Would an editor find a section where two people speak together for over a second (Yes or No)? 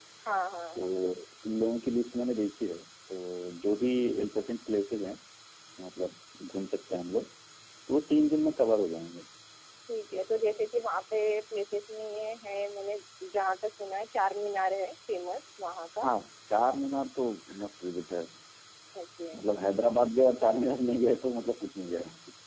No